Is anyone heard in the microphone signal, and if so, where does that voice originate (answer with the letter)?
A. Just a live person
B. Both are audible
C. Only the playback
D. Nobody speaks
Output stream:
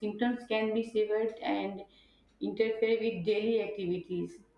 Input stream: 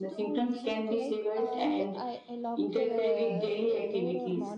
B